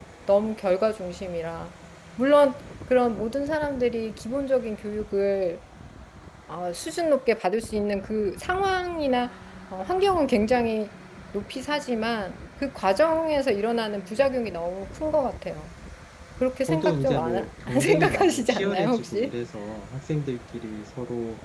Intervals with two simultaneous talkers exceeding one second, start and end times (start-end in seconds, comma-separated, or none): 16.7-19.3